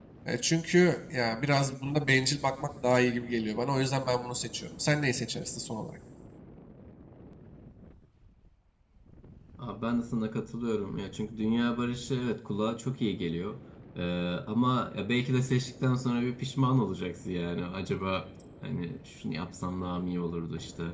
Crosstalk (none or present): none